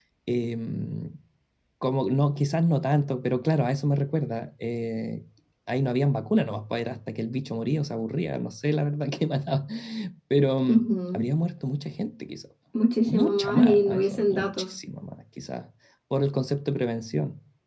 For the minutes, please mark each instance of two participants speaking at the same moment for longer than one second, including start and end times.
13.1-14.8

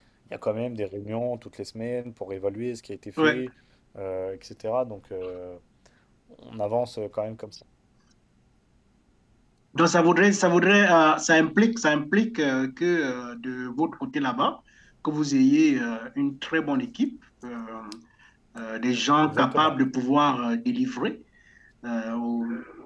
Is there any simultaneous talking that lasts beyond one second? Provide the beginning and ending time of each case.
none

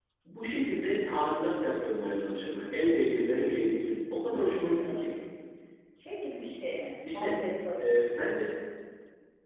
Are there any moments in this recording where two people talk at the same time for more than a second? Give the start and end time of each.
none

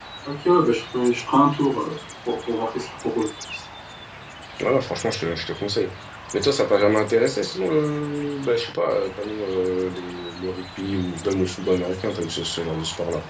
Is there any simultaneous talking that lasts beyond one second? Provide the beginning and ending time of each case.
none

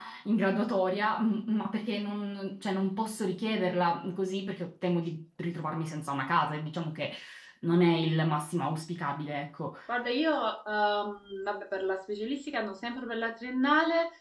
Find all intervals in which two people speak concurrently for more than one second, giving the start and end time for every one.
none

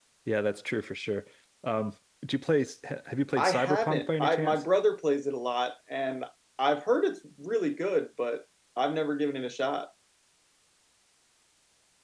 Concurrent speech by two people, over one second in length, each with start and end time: 3.4-4.6

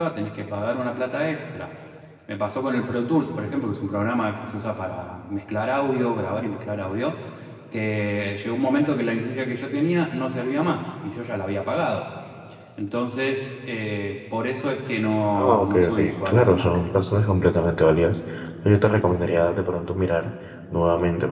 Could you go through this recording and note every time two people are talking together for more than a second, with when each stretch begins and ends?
15.3-16.8

